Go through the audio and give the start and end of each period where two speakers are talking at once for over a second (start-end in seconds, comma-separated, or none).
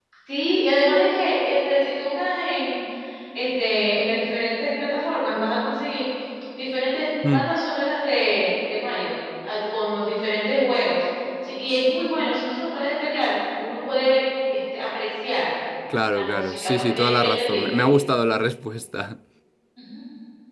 16.1-17.8